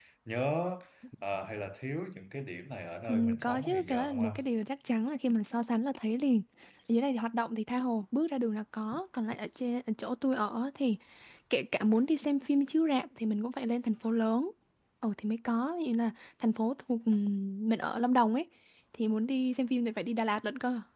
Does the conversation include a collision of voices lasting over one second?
Yes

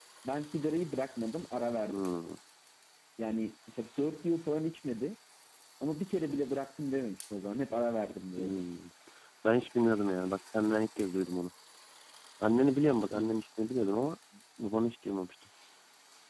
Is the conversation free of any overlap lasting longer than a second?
Yes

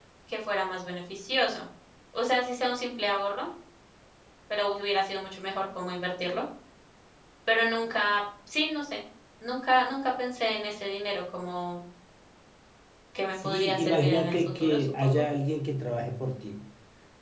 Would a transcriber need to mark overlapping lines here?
Yes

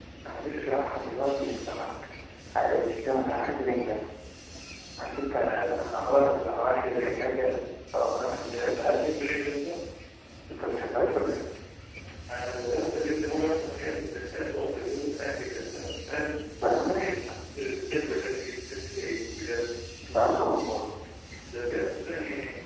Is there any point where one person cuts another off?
Yes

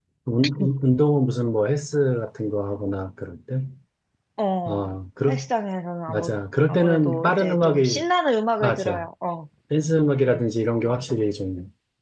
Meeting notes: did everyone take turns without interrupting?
No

